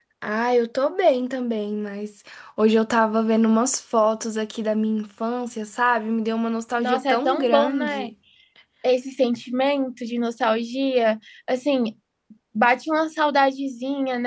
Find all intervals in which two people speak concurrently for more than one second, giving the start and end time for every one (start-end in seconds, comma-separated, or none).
6.8-8.1